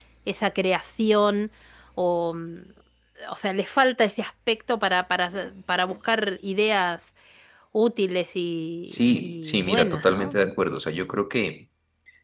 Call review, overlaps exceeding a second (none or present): present